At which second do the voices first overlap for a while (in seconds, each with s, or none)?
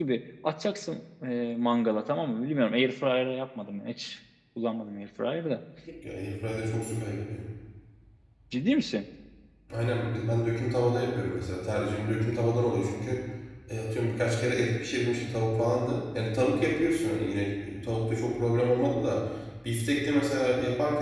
none